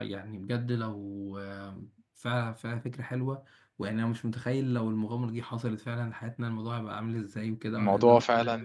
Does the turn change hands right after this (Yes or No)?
No